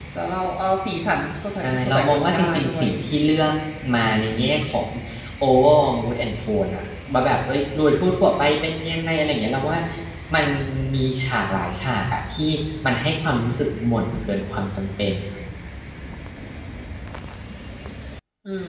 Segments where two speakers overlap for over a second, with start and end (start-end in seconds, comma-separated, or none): 1.6-3.4